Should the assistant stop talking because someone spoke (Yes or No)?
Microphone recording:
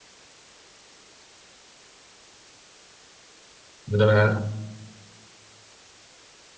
Yes